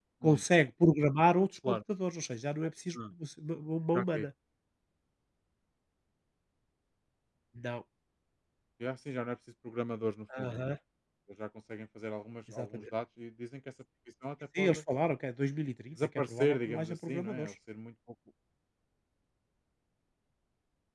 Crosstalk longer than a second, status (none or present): present